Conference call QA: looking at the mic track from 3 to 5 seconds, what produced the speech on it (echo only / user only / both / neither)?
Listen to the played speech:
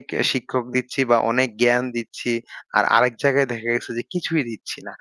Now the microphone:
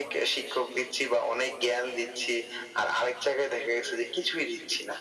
echo only